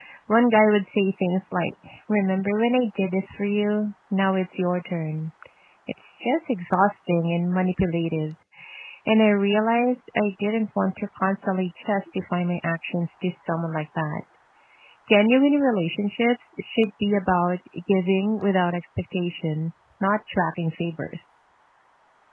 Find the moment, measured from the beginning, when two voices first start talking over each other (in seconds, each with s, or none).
none